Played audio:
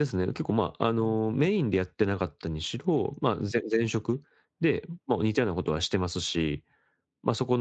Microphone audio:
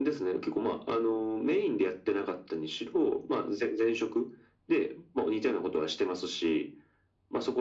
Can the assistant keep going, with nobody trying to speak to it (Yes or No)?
Yes